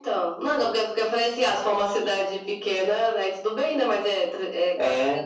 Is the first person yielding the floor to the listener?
No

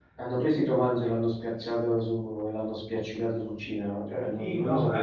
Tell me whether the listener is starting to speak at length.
Yes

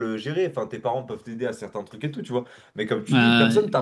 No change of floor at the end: Yes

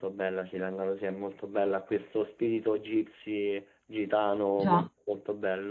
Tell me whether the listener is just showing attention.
Yes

